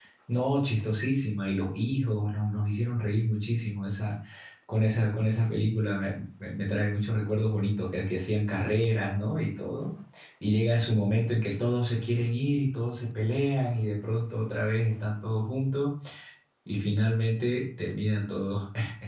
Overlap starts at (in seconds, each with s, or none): none